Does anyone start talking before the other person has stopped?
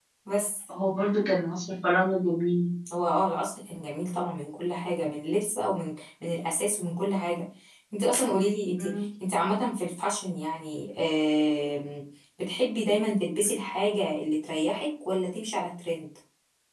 No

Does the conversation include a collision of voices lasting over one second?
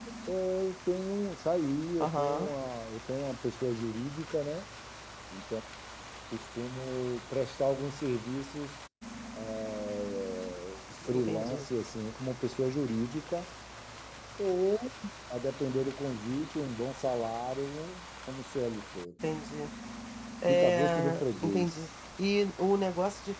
Yes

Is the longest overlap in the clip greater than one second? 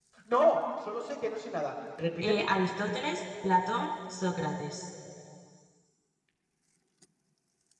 No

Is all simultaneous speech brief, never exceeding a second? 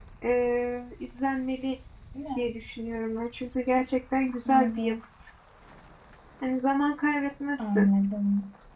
Yes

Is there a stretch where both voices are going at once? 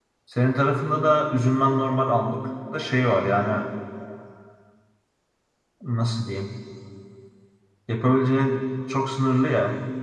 No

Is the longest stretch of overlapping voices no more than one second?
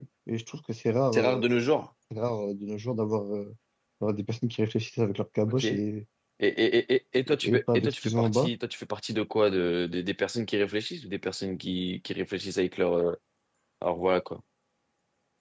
No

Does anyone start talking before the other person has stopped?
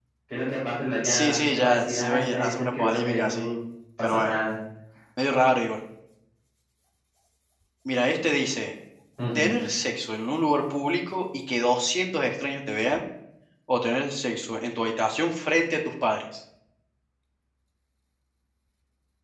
Yes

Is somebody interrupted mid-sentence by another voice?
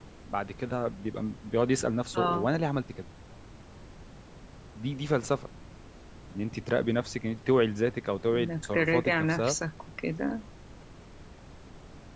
Yes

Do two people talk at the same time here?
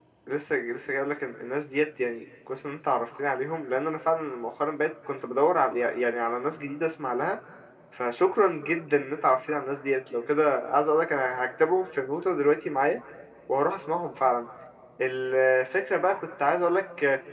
No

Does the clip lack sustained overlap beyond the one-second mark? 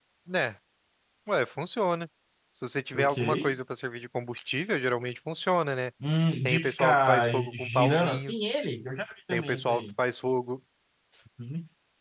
No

